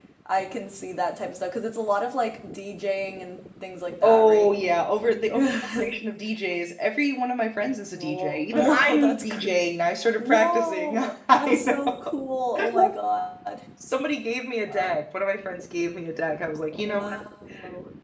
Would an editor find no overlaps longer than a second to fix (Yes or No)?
No